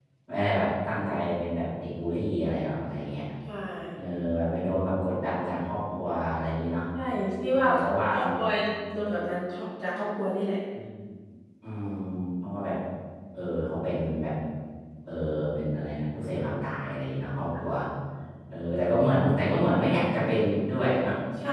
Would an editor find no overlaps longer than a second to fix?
Yes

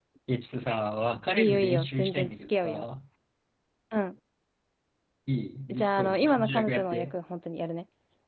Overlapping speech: Yes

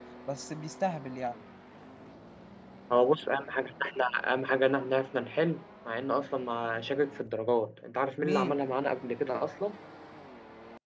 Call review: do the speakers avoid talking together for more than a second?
Yes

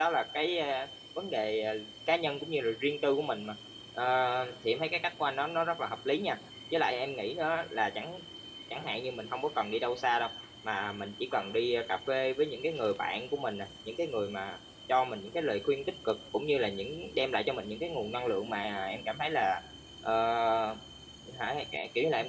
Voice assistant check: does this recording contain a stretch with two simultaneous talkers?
No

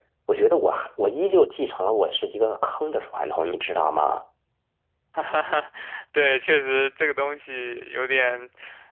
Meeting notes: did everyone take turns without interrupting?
Yes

